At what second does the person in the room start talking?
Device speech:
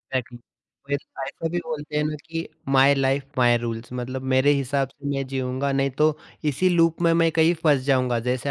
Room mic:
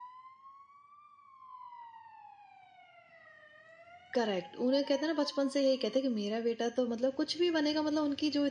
4 s

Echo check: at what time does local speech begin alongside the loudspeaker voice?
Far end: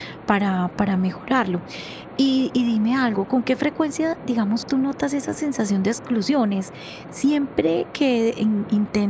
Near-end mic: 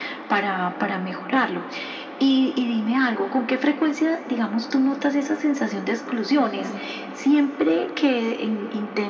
none

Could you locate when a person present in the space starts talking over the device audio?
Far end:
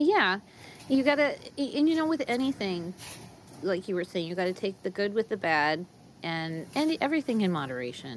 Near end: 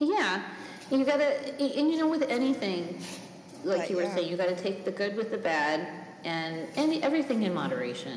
4 s

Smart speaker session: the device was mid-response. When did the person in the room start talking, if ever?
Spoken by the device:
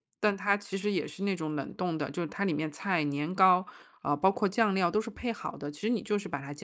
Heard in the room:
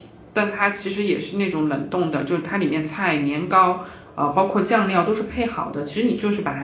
none

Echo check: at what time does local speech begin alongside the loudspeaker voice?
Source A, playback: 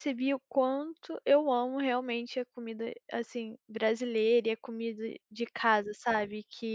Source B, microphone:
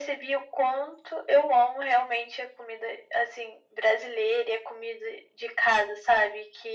none

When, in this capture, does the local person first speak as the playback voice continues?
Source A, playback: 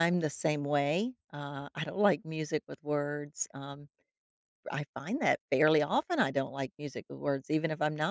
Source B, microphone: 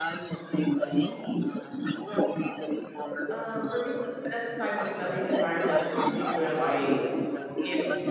3 s

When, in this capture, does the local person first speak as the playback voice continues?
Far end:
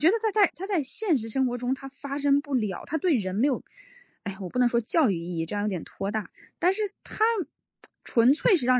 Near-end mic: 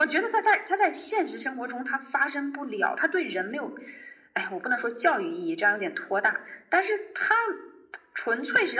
none

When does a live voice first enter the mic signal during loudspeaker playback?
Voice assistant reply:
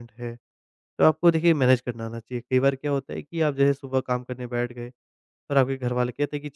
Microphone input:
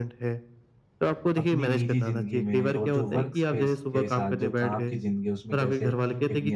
1 s

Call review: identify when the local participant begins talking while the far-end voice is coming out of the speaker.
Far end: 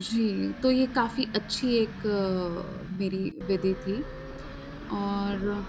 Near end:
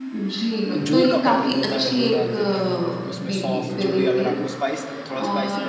1 s

